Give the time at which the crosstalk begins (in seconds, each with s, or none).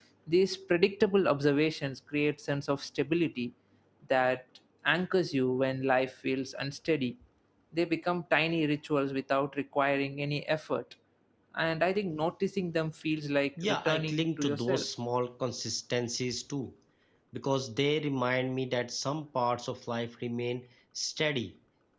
13.6 s